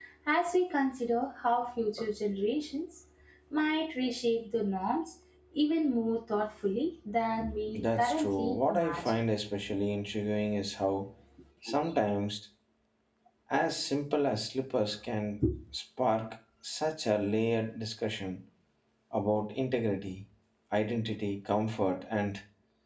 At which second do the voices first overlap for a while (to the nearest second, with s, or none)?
8 s